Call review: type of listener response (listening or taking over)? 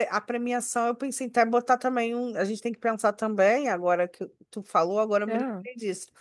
listening